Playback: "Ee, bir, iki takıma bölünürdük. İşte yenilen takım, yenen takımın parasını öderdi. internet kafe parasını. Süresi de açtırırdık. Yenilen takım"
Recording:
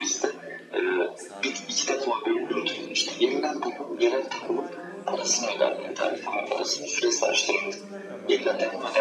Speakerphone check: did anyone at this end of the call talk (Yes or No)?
Yes